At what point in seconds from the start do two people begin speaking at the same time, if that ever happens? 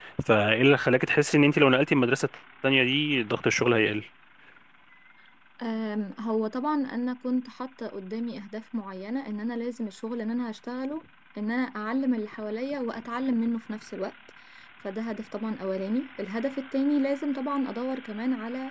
none

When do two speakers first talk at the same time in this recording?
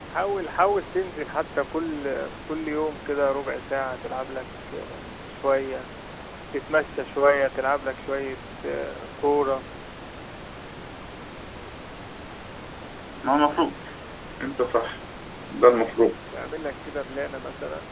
none

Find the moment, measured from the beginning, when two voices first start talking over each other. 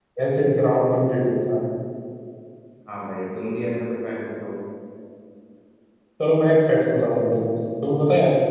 none

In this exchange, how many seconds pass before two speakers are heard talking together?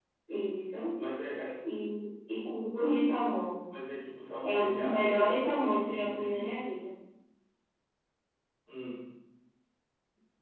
4.4 s

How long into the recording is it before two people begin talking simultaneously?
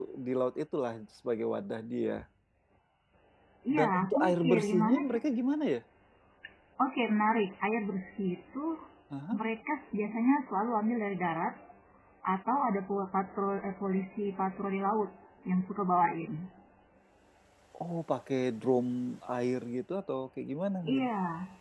3.8 s

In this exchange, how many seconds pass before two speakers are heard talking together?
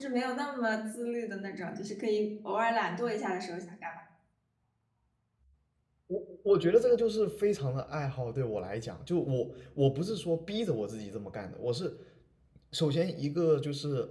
none

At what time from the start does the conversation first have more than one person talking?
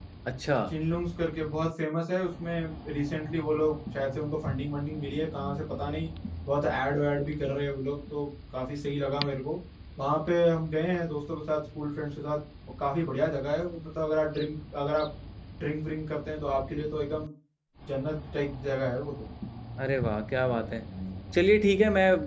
none

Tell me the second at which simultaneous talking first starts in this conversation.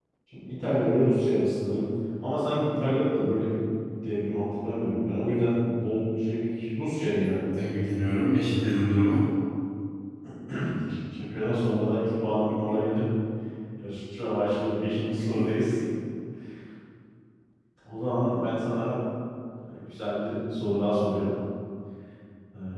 none

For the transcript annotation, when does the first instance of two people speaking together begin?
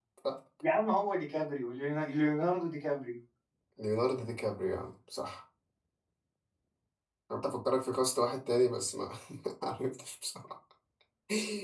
none

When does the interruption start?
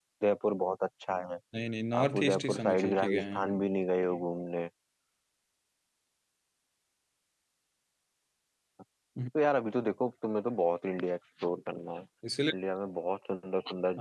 2.0 s

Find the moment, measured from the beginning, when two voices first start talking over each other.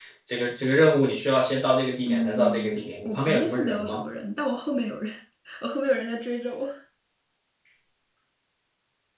2.1 s

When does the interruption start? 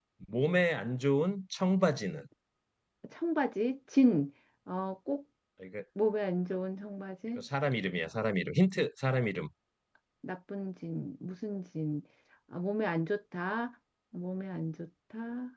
none

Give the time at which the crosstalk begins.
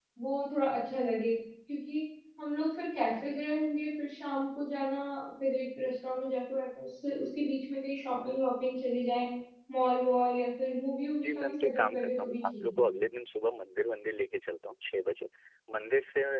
11.2 s

